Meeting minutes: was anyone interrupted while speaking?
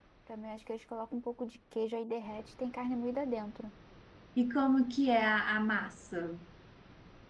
No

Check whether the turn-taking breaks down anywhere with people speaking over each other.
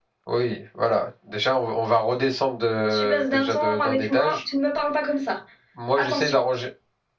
Yes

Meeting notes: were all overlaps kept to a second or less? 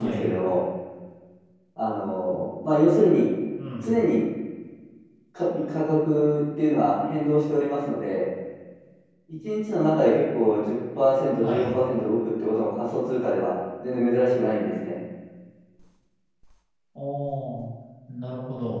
Yes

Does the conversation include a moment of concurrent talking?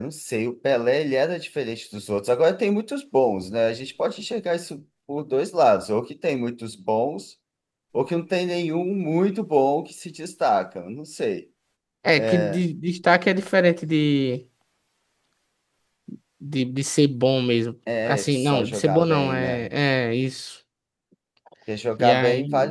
Yes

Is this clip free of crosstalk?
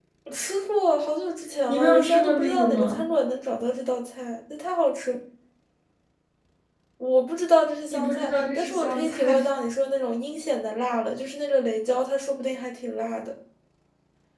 No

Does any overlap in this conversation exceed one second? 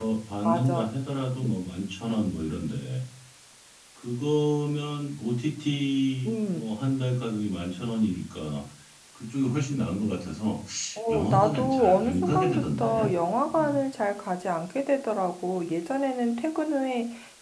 Yes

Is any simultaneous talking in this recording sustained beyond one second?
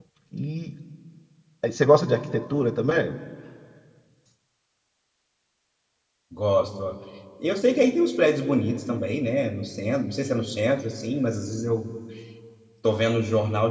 No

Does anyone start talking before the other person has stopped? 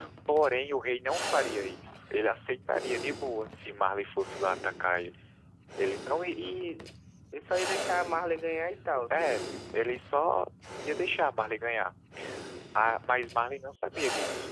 No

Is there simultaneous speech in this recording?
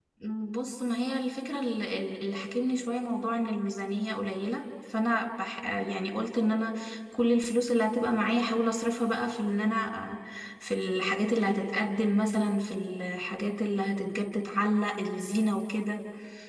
No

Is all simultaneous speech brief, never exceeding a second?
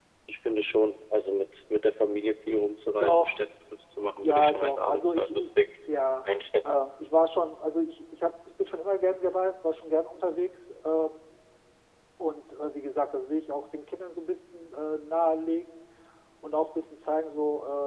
No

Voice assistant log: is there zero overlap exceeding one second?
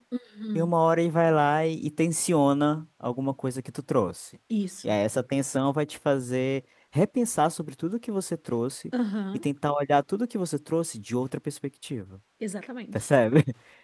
Yes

